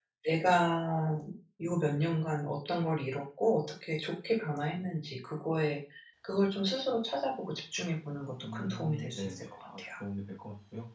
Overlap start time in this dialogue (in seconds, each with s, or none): 8.4 s